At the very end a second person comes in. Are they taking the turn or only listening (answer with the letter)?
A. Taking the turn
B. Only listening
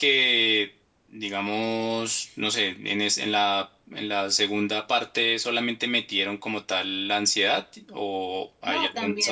A